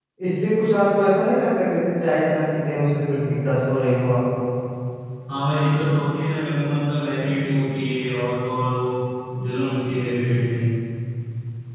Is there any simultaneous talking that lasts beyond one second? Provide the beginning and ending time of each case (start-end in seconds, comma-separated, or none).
none